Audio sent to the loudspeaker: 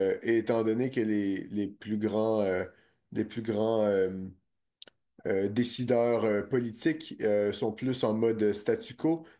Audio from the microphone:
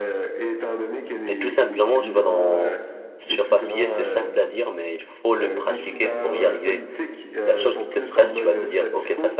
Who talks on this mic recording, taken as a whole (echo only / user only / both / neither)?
both